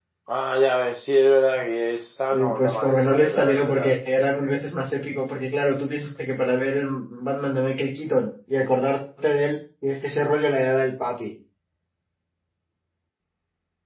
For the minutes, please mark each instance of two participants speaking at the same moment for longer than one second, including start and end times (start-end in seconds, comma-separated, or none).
2.3-3.9